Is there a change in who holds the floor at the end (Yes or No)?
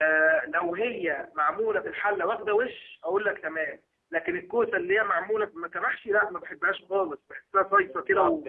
Yes